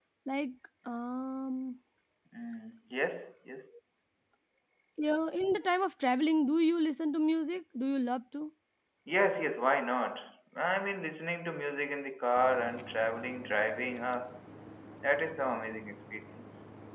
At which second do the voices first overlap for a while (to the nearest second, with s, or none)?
none